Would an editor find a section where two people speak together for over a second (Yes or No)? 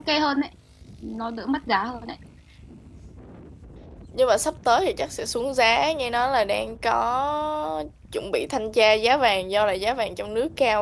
No